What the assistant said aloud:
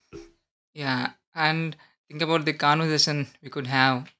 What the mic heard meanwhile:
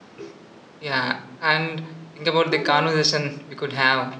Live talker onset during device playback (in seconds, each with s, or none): 2.5 s